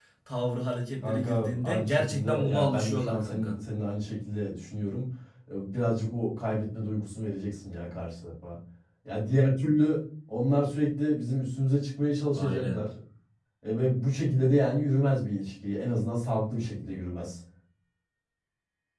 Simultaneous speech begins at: 1.0 s

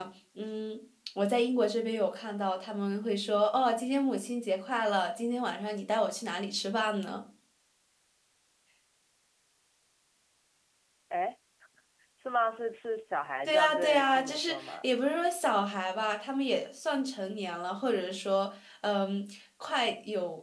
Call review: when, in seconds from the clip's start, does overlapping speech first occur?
13.5 s

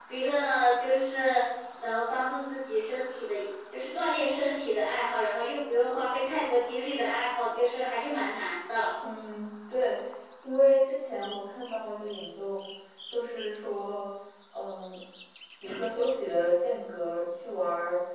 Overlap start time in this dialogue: none

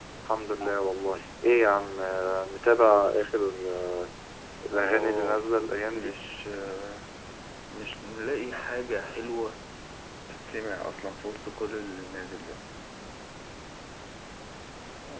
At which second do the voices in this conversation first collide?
4.7 s

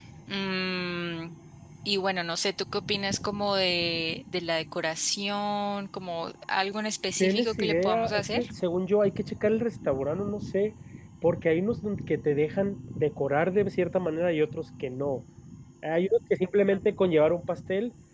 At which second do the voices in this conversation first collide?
7.2 s

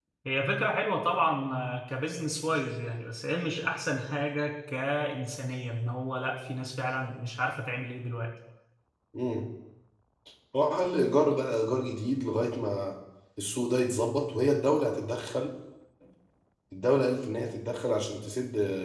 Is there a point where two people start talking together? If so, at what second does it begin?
none

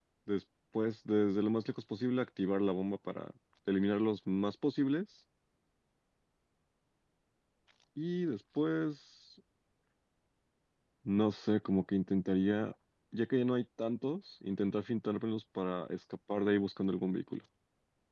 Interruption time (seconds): none

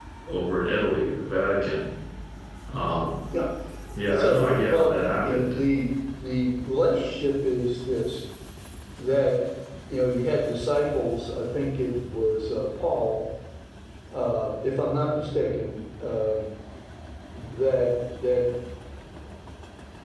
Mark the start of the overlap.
4.1 s

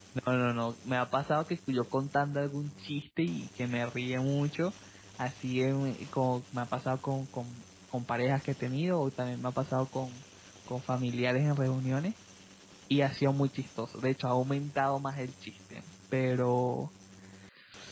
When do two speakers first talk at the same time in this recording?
none

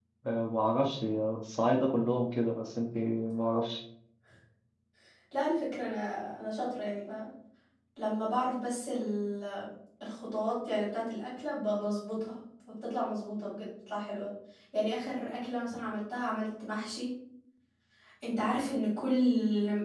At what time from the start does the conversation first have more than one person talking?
none

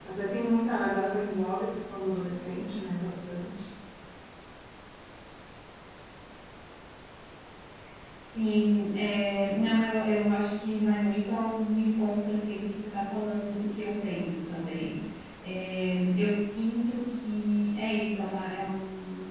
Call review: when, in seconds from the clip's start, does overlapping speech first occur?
none

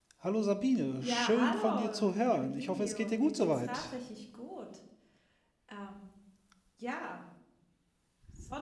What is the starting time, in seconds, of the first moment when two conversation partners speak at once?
1.0 s

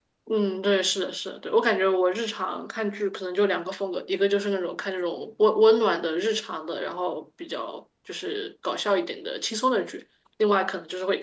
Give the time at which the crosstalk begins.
none

